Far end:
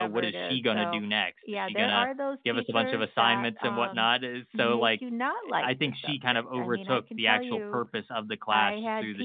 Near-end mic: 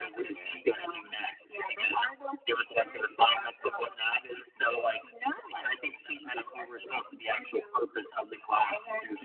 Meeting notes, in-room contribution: none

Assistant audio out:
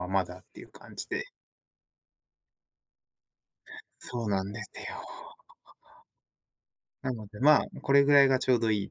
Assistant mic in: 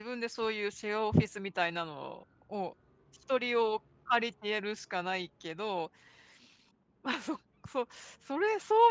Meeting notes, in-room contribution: present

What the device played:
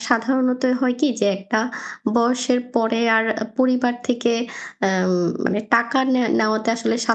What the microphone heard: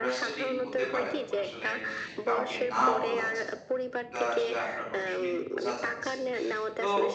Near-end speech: present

